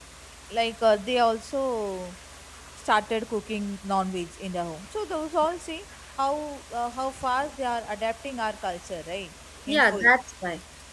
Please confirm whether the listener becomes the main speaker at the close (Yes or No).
Yes